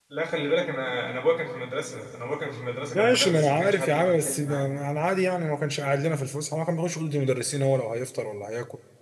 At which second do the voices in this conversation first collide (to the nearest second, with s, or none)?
3 s